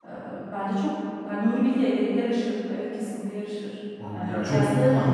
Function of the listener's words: taking over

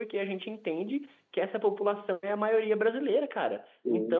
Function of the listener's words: listening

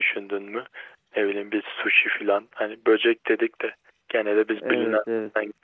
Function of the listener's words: listening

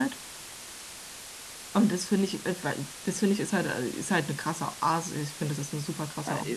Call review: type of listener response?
taking over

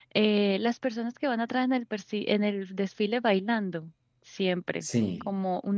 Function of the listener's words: listening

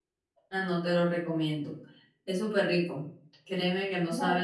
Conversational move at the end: listening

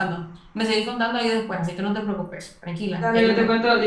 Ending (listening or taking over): taking over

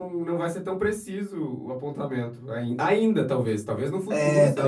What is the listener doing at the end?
taking over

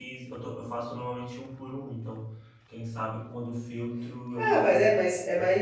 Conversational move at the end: taking over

